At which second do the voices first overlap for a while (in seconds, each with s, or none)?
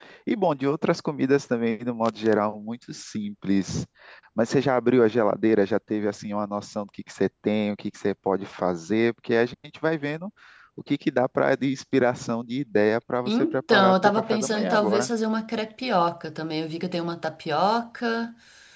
13.2 s